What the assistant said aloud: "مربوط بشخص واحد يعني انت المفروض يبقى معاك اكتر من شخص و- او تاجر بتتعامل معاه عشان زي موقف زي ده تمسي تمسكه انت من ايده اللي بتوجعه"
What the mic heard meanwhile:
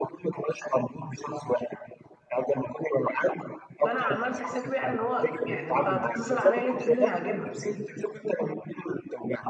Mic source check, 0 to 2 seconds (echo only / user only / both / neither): echo only